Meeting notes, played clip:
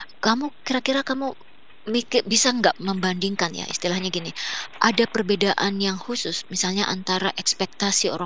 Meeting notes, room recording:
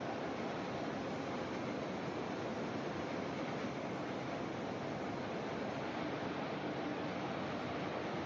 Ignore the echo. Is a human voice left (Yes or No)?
No